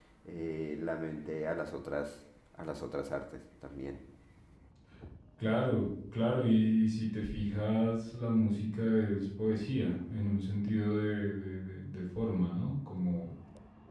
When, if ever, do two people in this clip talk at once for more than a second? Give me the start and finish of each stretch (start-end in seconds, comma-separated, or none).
none